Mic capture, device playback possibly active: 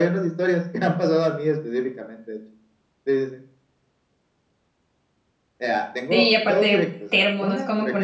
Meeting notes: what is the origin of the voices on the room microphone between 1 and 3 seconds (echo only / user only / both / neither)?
echo only